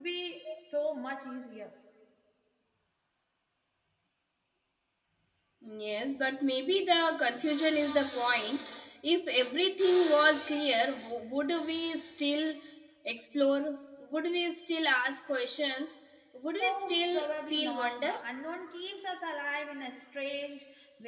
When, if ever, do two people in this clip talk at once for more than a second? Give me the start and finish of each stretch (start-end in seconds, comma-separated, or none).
16.6-18.1